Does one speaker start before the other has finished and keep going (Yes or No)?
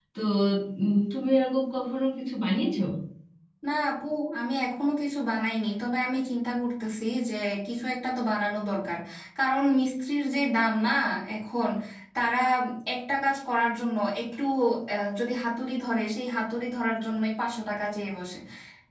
No